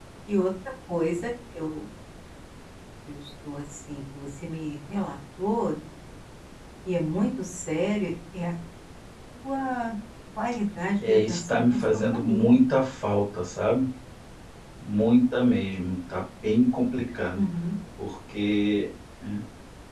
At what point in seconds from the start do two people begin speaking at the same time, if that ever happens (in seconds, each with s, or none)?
11.0 s